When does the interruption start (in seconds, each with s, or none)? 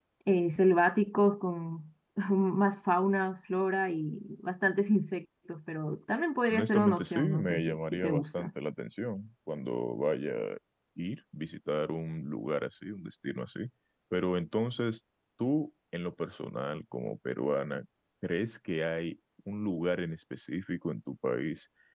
6.5 s